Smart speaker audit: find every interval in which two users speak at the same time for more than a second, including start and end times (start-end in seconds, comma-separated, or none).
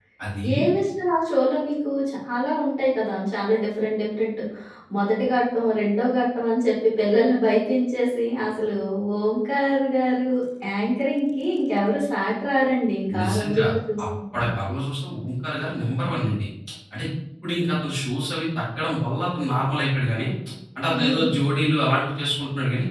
none